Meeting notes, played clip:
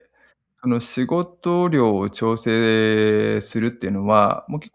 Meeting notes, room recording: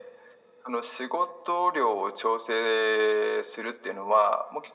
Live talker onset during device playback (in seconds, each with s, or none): none